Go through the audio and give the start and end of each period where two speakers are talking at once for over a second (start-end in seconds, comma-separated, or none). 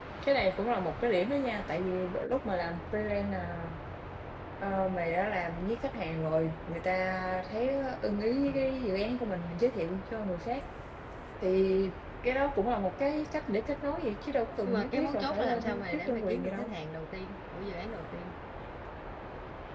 14.7-16.7